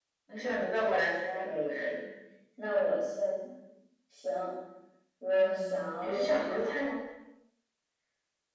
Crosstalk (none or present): present